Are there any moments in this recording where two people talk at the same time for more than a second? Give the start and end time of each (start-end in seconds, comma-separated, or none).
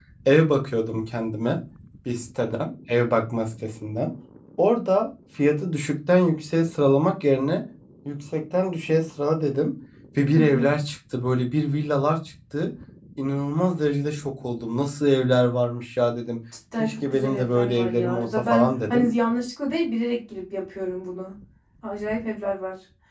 16.8-19.1